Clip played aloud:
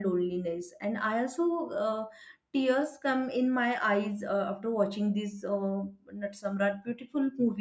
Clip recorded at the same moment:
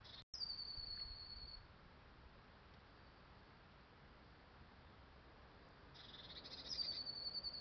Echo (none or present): none